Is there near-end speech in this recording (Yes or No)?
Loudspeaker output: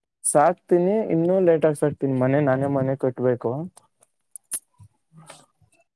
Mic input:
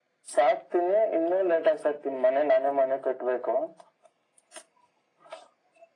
No